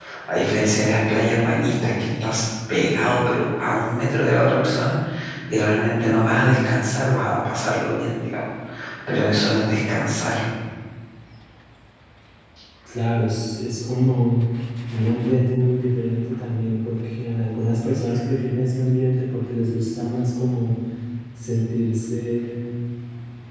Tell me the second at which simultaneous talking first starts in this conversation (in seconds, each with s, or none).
none